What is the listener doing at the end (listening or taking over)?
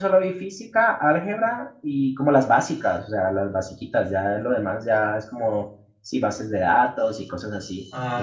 taking over